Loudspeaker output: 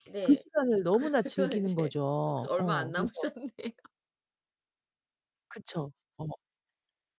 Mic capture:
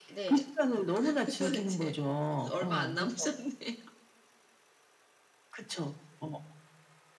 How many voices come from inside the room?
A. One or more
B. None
B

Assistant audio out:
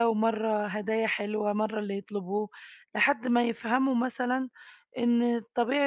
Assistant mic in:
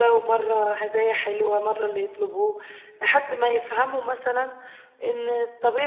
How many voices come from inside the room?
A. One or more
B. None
B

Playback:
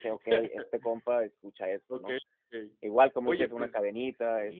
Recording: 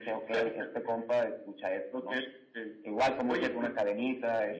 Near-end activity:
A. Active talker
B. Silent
B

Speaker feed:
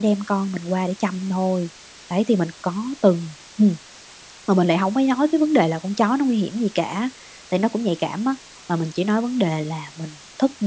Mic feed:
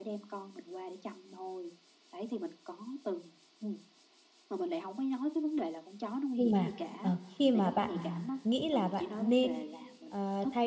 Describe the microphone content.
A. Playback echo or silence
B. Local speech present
B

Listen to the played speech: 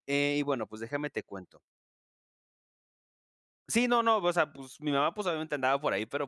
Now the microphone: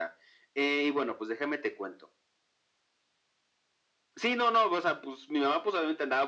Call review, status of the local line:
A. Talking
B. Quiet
B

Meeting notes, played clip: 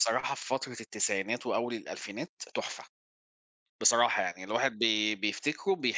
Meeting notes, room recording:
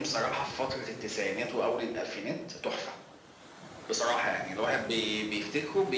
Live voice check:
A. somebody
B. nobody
B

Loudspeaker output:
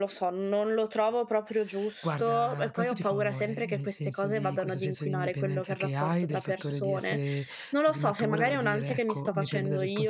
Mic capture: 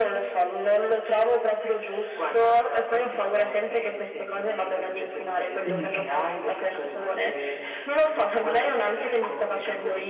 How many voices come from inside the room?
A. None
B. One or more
B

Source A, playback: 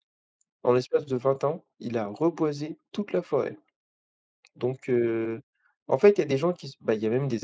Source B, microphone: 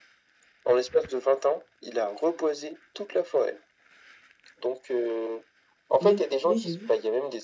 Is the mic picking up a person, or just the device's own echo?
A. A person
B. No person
A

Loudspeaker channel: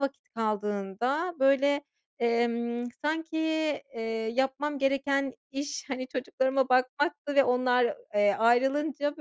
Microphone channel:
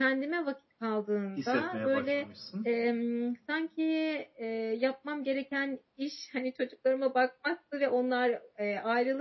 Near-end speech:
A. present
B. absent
A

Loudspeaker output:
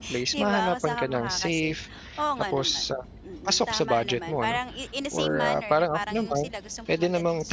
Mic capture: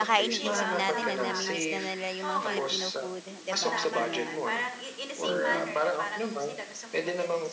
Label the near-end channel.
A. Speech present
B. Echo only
A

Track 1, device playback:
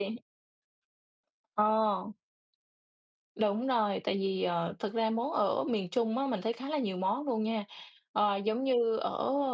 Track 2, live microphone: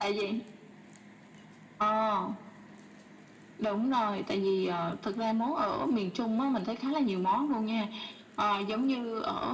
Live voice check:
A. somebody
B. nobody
B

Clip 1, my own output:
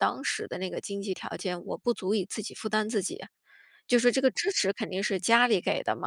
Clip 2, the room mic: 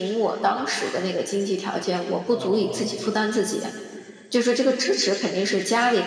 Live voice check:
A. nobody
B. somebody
B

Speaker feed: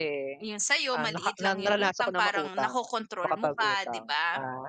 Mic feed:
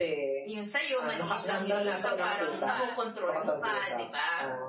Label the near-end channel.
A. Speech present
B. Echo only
A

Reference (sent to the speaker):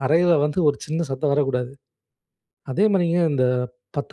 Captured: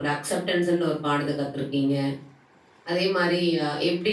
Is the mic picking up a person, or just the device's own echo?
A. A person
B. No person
A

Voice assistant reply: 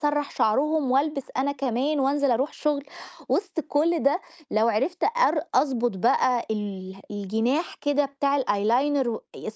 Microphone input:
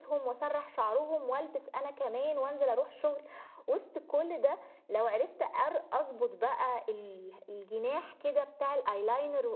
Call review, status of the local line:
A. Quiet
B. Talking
A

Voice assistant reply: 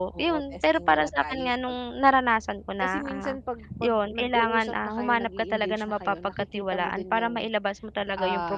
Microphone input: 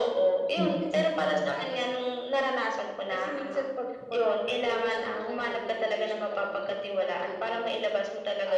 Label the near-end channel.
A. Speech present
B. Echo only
A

